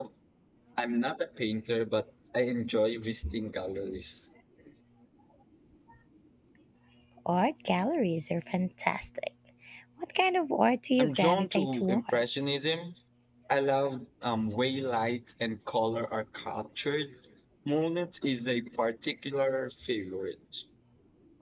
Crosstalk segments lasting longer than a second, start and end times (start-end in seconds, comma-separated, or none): 11.0-12.6